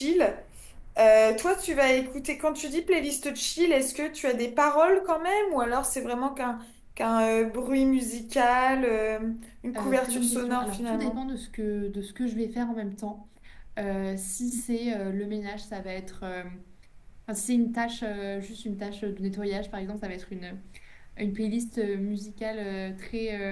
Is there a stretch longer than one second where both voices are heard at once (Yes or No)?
Yes